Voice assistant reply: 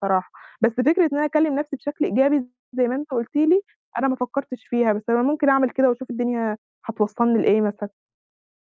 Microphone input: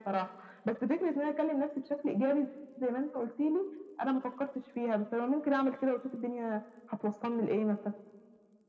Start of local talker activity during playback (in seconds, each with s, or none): none